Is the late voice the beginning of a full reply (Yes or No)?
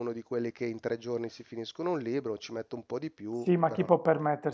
Yes